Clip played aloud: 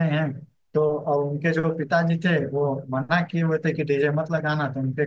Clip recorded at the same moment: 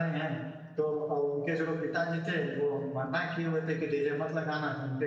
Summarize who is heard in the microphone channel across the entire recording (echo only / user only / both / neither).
echo only